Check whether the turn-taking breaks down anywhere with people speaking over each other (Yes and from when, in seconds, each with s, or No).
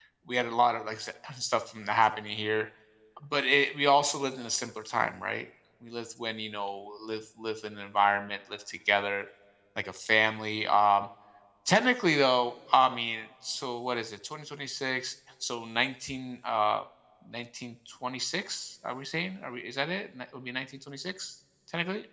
No